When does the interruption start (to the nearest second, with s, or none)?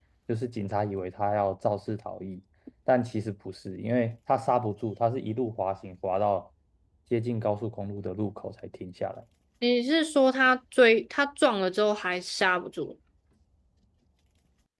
none